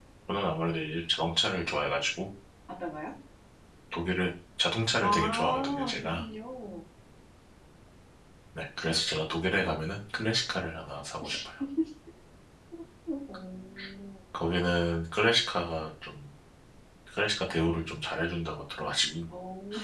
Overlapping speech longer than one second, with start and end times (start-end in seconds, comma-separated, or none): 5.0-6.2